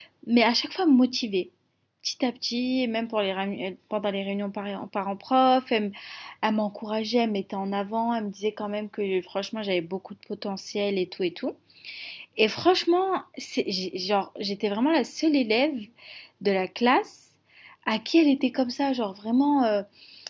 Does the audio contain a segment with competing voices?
No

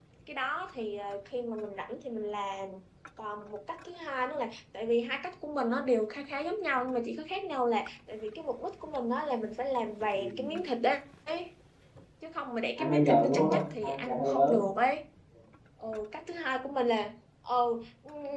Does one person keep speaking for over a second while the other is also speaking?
Yes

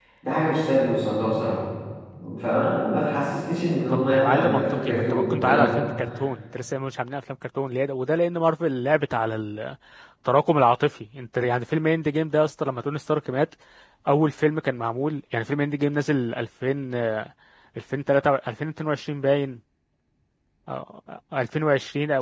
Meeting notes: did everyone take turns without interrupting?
No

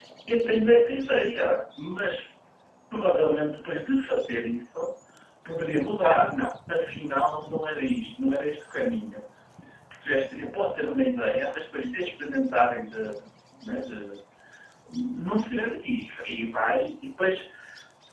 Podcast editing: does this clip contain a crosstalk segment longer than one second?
No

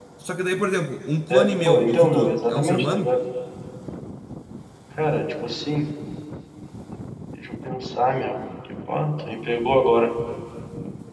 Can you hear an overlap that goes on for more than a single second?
Yes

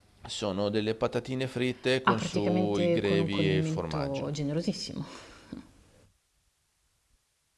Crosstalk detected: Yes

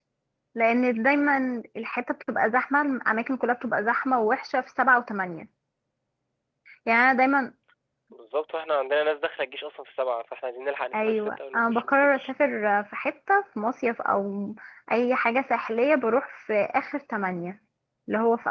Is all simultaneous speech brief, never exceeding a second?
No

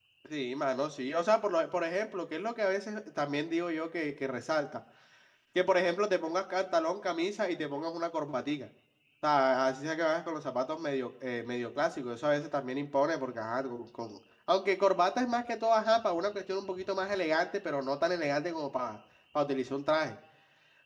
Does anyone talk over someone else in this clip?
No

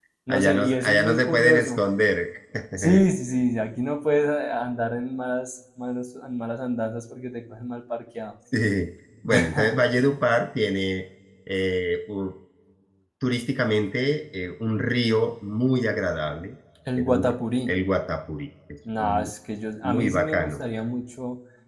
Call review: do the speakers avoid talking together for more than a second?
No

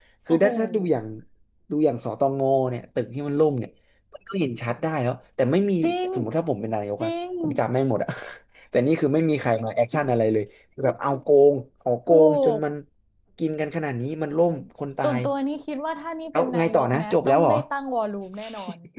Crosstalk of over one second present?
Yes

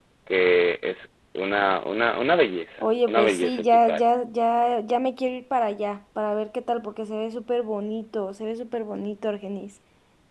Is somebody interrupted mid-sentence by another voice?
Yes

